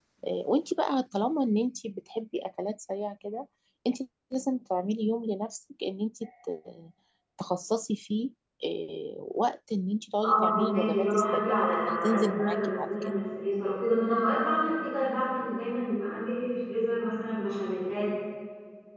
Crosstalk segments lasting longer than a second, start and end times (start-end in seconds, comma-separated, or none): 10.2-12.9